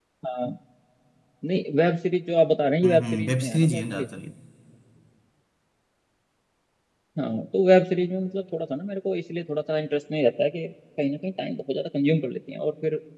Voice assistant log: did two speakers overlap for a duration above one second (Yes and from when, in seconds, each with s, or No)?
Yes, from 2.8 s